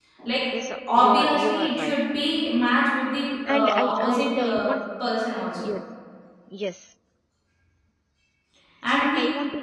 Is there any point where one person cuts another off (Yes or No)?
Yes